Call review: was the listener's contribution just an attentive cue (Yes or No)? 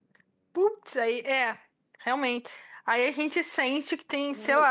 No